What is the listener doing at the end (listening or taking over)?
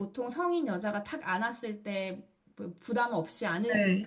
taking over